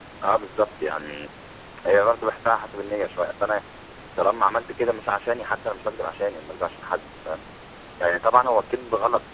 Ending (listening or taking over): listening